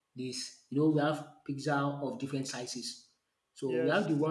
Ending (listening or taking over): listening